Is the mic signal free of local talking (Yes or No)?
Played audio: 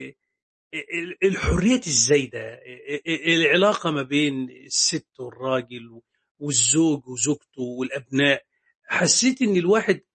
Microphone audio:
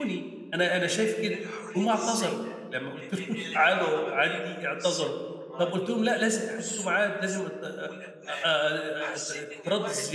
No